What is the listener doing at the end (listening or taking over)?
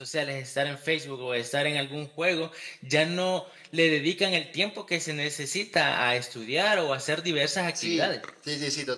taking over